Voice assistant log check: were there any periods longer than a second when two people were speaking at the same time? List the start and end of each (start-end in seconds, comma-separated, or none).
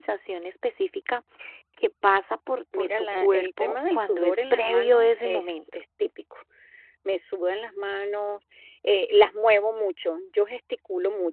2.7-5.6